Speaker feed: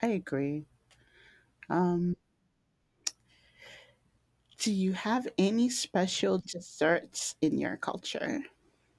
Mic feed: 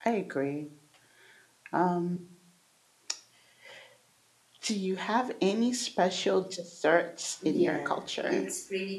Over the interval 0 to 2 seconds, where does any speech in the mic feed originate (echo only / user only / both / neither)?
echo only